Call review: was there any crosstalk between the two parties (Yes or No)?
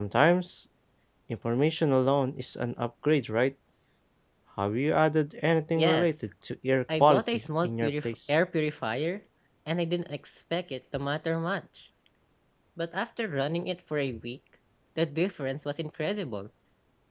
Yes